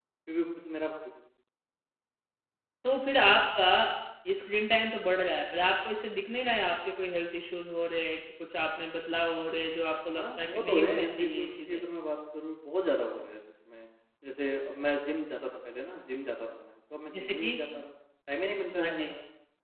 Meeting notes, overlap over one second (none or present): present